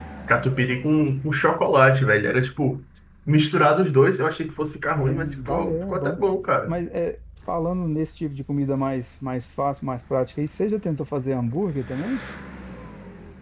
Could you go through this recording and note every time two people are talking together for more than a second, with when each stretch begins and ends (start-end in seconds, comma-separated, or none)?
5.0-6.2